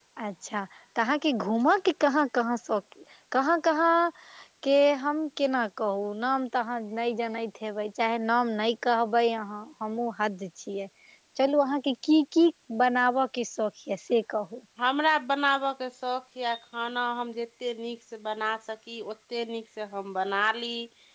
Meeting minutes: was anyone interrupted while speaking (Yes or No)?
No